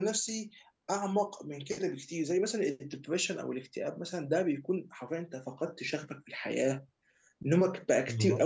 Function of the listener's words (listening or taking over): listening